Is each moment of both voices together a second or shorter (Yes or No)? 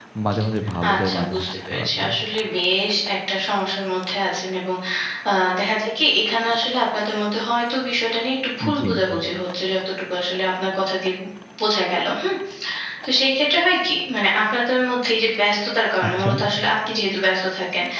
No